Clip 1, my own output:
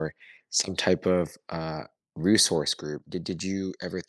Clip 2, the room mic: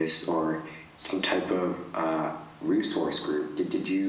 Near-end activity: none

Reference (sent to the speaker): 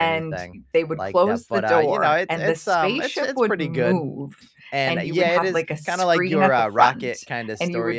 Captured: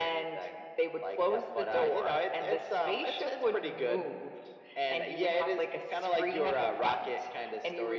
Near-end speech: none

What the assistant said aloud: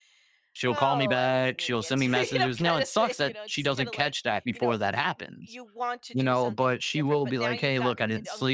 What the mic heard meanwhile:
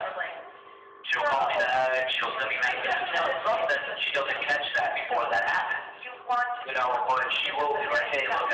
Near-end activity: none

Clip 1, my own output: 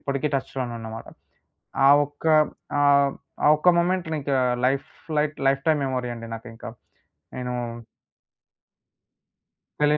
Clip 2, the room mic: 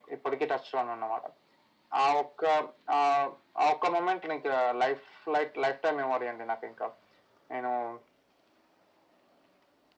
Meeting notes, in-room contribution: none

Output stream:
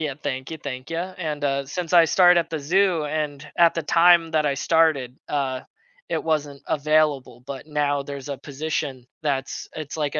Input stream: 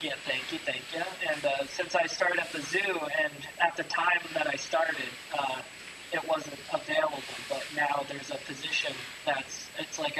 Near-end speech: none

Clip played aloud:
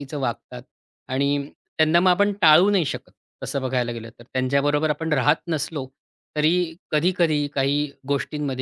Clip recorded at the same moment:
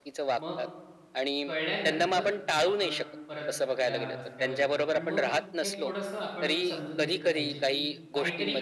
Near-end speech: present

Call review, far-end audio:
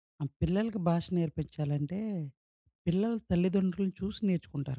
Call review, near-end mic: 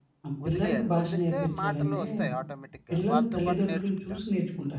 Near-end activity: present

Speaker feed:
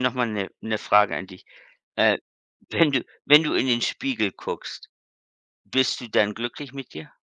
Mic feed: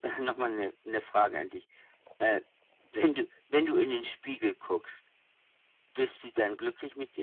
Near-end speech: none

